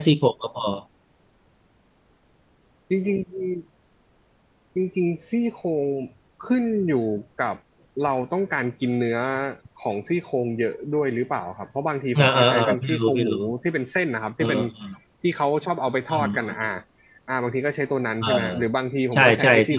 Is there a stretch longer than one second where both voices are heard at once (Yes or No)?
Yes